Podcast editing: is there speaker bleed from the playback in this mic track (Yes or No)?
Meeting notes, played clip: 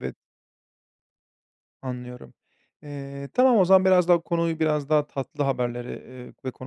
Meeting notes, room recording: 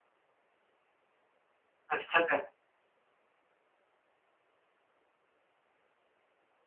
No